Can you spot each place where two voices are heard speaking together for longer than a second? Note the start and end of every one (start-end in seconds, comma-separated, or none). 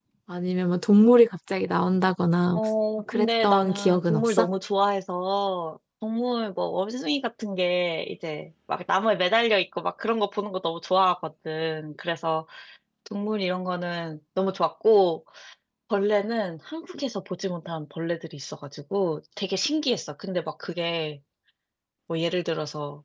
3.1-4.5